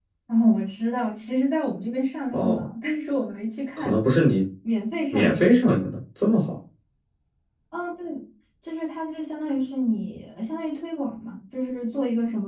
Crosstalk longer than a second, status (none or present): none